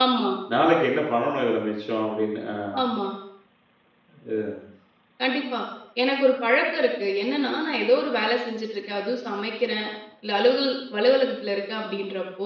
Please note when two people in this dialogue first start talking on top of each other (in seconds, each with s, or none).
none